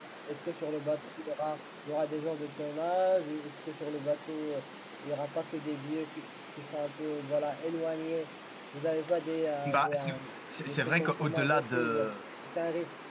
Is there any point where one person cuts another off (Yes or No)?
Yes